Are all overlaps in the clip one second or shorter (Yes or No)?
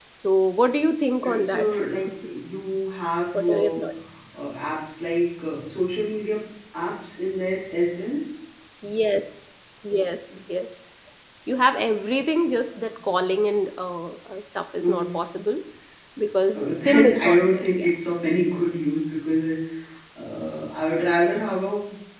No